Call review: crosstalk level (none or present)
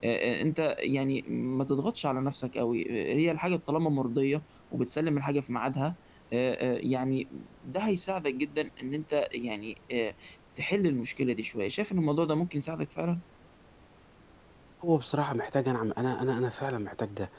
none